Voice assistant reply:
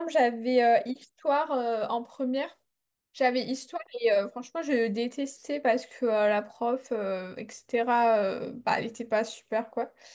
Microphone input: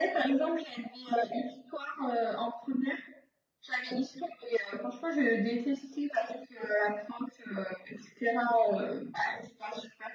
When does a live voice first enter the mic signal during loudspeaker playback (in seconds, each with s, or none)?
none